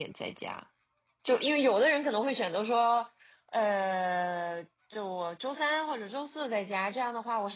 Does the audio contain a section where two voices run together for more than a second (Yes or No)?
No